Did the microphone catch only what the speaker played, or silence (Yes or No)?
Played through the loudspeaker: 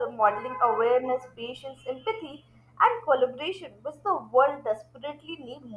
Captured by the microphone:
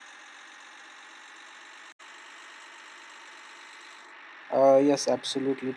No